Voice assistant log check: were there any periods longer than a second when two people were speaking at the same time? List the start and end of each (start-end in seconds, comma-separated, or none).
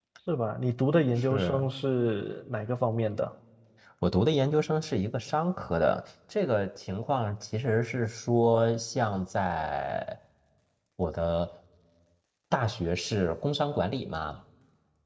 none